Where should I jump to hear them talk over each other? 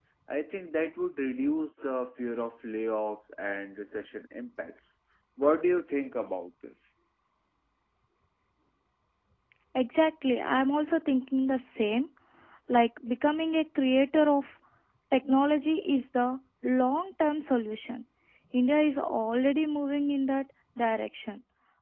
none

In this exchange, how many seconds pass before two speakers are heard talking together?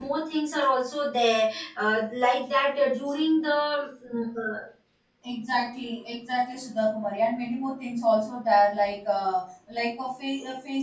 none

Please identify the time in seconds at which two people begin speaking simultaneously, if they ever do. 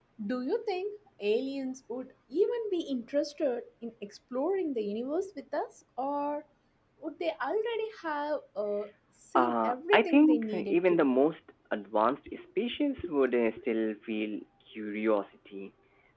9.4 s

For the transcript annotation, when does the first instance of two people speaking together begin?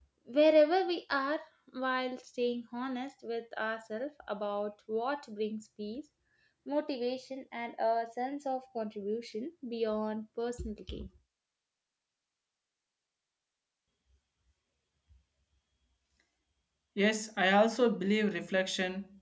none

